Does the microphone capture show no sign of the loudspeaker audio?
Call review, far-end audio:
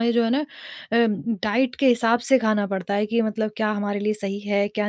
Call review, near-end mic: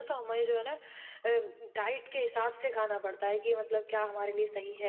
No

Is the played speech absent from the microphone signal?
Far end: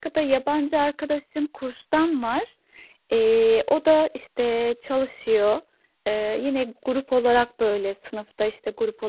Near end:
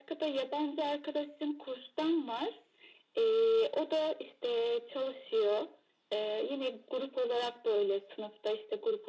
No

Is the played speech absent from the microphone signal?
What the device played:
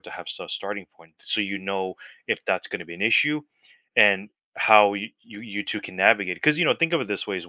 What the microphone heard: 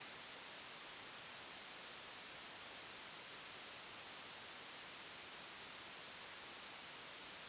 Yes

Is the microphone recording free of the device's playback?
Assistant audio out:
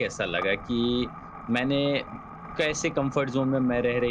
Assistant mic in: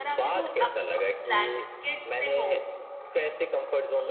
No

